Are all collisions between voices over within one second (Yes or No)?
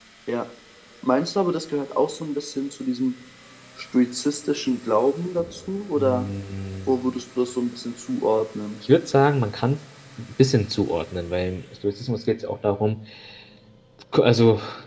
Yes